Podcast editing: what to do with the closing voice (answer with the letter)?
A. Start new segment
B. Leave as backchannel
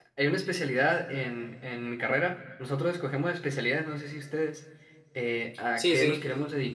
B